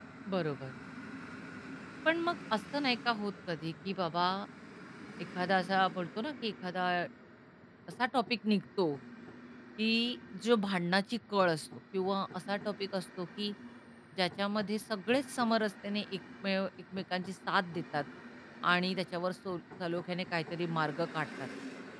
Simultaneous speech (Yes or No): No